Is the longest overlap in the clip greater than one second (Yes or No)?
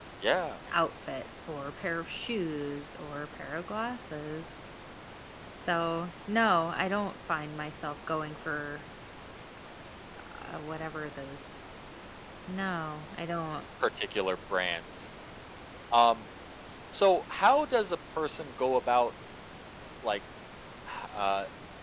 No